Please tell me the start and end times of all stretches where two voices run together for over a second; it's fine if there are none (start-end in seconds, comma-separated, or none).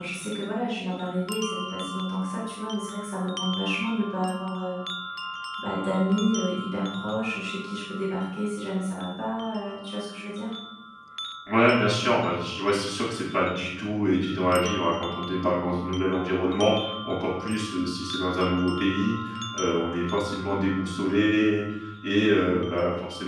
none